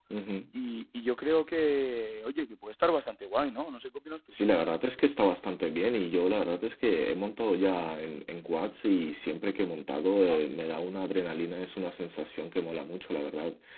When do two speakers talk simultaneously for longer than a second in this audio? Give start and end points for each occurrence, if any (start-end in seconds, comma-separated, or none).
none